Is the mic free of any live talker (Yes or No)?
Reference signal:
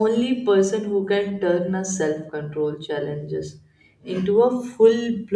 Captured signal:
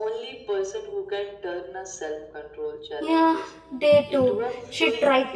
No